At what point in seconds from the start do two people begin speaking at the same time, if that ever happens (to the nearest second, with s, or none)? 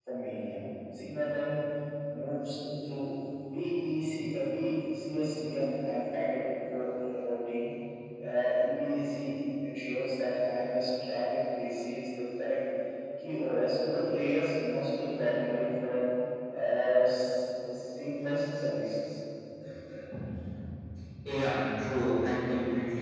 none